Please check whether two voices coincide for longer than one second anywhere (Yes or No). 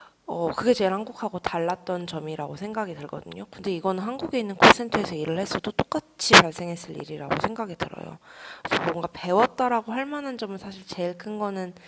No